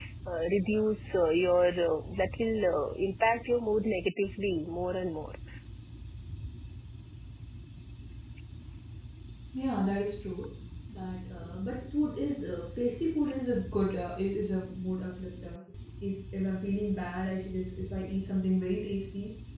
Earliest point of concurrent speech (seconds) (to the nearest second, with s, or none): none